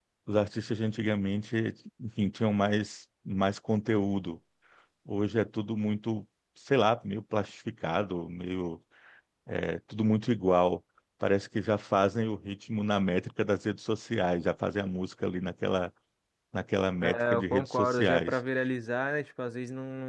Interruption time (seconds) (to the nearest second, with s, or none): 17 s